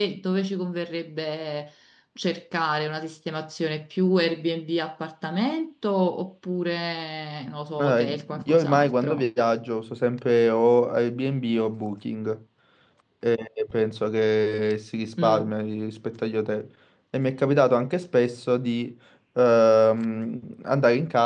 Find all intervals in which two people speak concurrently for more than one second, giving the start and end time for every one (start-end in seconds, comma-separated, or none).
7.8-9.2